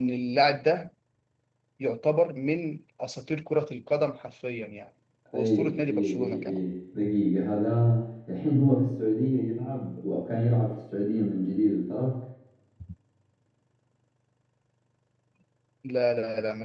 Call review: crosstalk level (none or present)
present